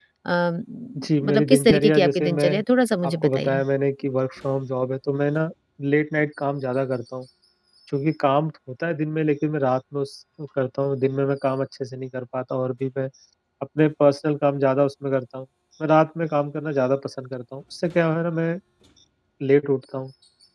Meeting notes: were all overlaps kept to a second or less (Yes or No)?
No